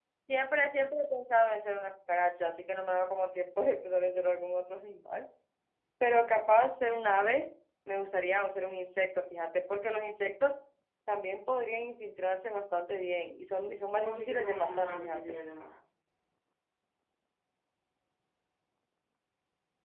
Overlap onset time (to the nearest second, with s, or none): 14 s